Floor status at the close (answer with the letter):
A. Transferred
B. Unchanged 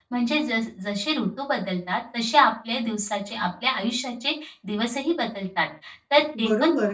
A